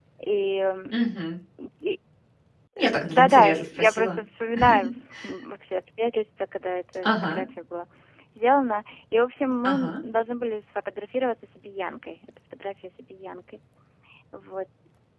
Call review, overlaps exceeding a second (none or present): present